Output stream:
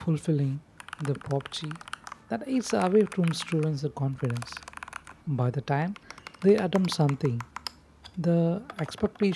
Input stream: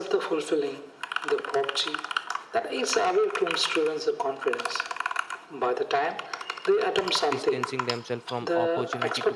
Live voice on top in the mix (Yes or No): No